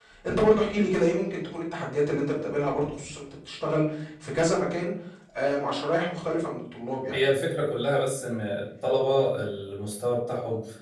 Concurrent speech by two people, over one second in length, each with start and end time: none

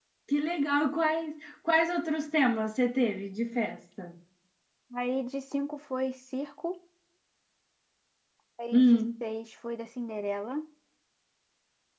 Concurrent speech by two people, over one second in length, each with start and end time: none

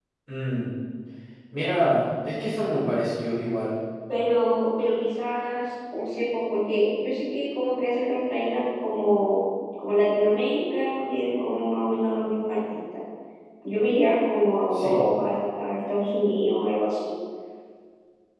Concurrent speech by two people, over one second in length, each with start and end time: none

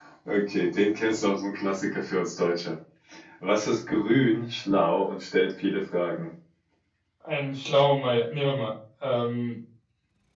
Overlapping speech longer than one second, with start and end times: none

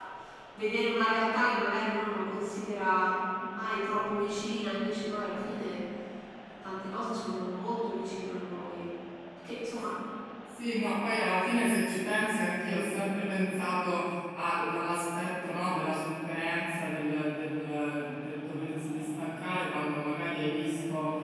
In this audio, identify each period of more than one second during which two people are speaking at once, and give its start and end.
none

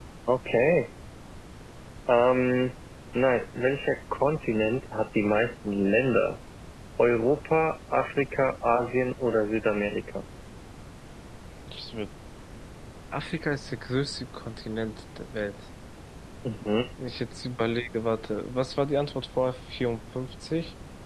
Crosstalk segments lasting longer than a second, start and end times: none

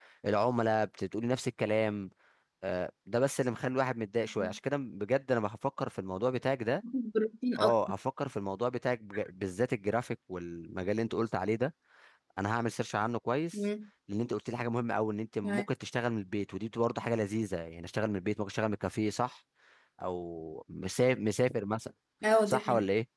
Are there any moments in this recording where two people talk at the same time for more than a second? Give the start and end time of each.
none

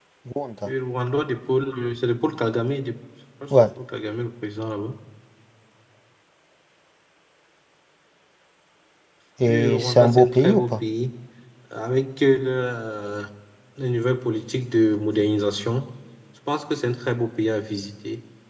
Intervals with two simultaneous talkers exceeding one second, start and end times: 9.5-10.7

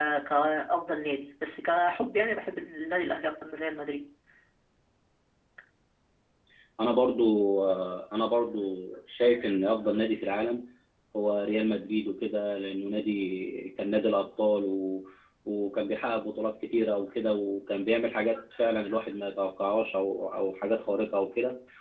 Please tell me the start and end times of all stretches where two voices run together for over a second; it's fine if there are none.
none

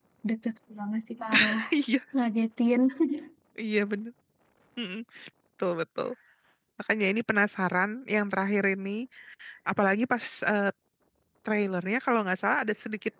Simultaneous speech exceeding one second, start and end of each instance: none

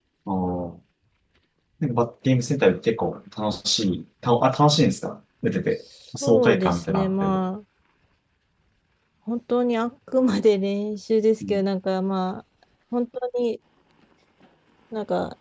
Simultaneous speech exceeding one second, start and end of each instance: 6.2-7.4

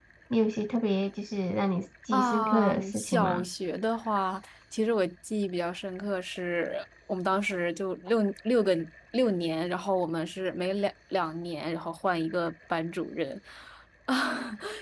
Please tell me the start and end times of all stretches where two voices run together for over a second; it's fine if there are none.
2.1-3.5

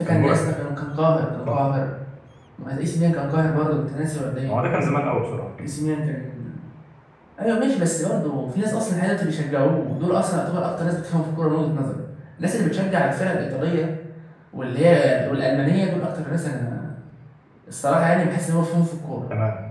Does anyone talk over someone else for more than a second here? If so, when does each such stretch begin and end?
none

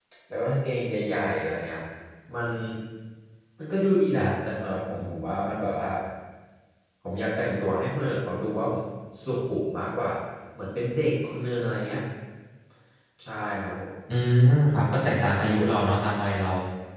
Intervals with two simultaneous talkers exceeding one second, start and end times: none

